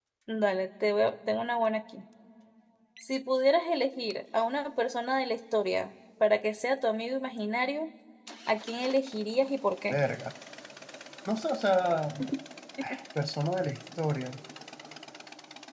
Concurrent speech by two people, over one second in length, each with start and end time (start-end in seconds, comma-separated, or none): none